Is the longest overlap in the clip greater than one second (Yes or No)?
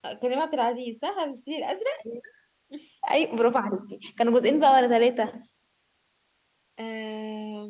No